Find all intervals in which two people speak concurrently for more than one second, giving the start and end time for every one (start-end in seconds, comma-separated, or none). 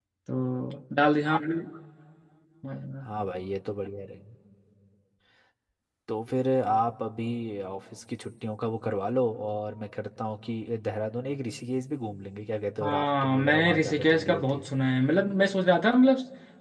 12.8-14.7